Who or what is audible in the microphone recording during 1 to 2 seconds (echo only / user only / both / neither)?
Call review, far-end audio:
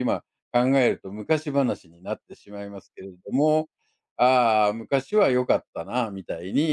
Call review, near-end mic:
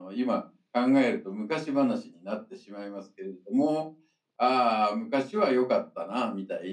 echo only